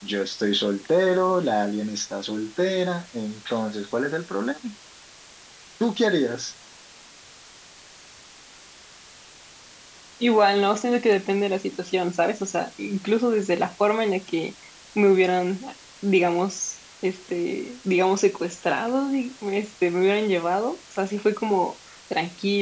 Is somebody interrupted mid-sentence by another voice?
No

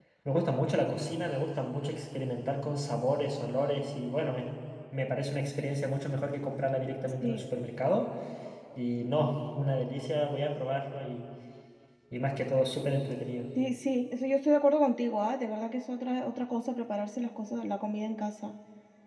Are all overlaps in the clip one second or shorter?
Yes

